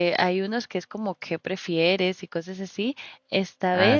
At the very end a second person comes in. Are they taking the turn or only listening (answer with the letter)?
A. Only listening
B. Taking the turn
A